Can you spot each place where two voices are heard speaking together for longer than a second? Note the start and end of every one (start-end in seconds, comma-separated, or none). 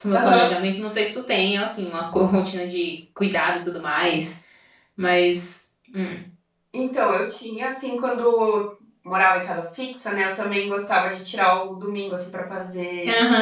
none